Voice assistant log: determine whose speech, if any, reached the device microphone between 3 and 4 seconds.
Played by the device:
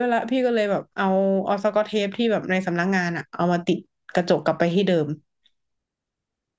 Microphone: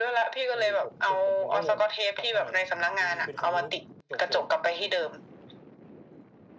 both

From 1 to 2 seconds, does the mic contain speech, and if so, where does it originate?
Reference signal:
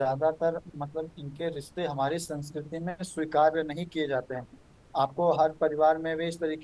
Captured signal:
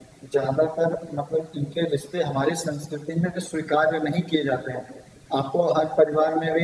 echo only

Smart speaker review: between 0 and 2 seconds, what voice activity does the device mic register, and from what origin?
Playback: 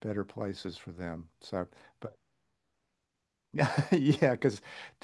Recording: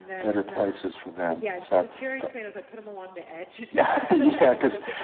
both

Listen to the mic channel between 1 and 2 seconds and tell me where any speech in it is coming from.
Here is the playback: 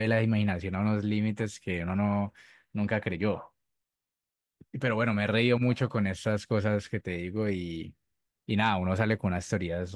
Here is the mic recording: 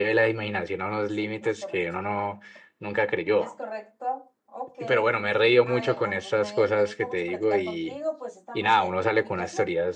both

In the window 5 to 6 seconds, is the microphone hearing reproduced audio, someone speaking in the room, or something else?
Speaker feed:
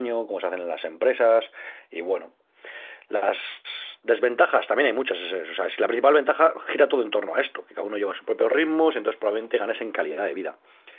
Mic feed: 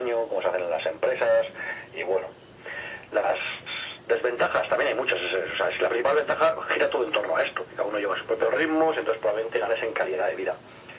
echo only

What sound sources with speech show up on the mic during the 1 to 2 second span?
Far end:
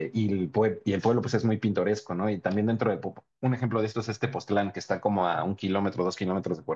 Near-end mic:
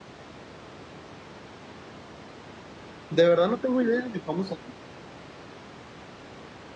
neither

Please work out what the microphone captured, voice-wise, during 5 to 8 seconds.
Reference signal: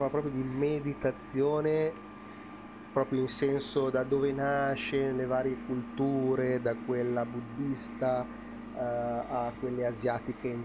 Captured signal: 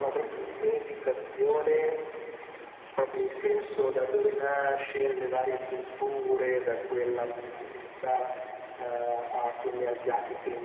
echo only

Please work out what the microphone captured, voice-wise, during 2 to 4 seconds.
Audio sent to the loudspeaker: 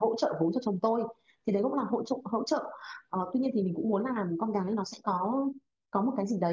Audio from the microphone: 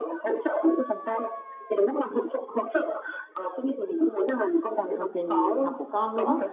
echo only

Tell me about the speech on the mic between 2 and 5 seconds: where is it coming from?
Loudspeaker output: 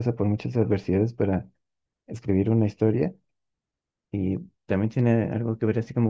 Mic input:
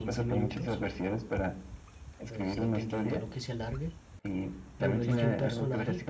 both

